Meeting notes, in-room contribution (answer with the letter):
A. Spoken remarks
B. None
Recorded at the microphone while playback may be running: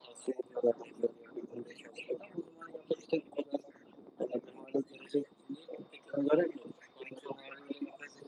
B